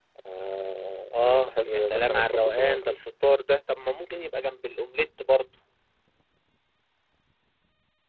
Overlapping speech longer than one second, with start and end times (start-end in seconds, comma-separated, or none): 1.1-3.0